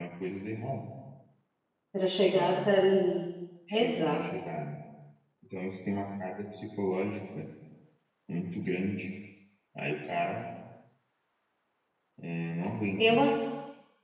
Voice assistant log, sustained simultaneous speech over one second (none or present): none